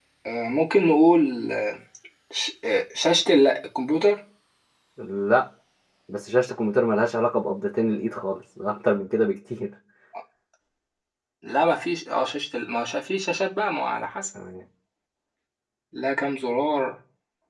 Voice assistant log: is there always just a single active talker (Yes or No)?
Yes